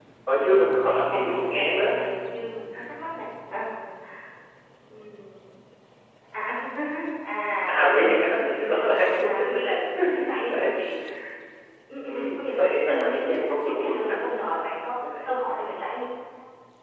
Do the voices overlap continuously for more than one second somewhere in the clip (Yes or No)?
Yes